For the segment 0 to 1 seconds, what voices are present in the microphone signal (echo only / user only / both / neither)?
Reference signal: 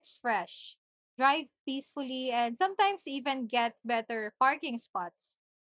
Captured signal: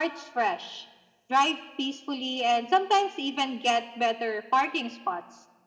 echo only